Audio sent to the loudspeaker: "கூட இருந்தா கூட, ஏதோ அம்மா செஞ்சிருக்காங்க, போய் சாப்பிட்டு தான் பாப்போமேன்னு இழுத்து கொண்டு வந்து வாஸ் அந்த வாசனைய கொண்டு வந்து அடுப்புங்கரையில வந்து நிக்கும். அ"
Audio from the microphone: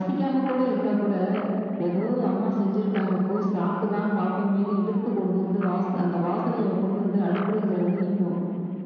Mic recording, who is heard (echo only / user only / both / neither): echo only